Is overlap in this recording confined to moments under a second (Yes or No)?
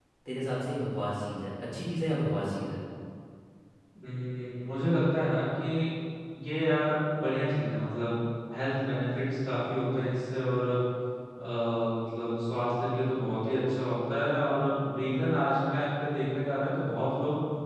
Yes